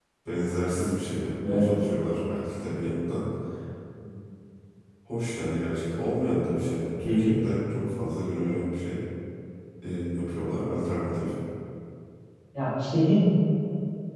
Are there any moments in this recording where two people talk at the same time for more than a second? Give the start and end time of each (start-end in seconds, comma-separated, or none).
none